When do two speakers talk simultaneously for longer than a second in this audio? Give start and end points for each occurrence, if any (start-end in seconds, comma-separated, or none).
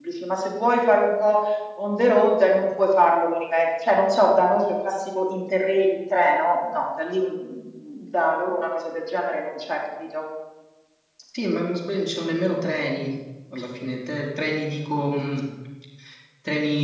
none